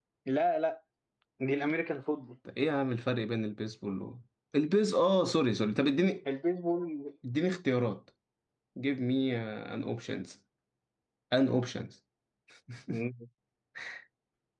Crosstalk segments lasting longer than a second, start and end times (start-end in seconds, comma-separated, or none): none